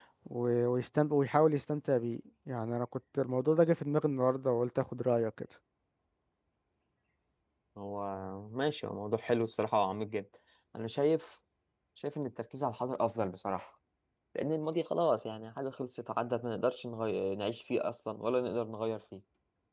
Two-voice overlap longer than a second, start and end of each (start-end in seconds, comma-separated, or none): none